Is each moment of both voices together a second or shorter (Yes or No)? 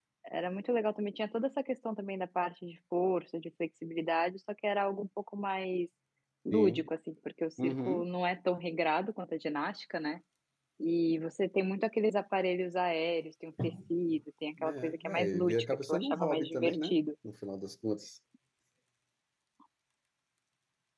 No